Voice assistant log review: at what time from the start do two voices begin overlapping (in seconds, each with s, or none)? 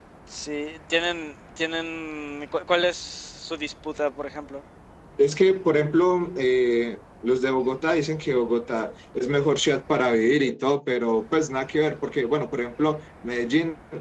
none